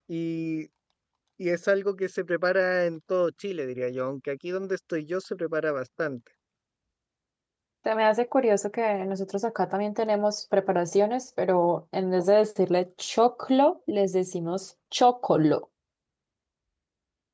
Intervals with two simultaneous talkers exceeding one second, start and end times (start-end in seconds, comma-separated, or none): none